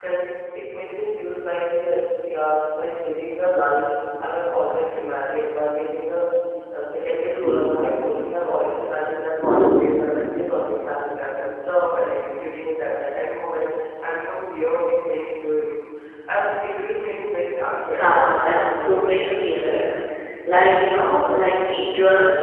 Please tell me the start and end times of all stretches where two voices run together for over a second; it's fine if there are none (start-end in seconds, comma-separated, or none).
17.9-19.9